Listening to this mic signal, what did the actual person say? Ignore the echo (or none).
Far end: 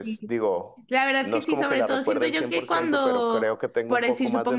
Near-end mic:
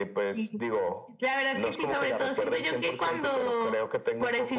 none